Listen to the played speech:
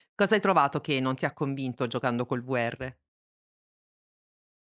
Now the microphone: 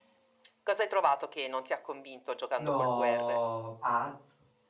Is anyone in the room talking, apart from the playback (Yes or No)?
Yes